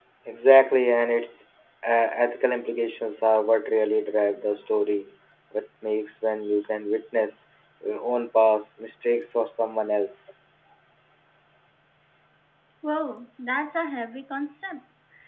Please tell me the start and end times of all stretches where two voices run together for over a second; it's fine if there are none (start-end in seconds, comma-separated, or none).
none